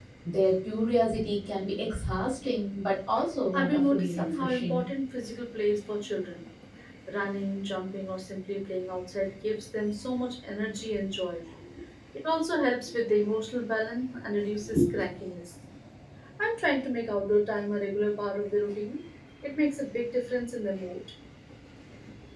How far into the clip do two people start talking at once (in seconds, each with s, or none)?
3.5 s